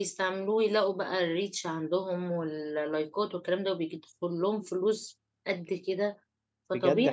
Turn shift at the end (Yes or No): Yes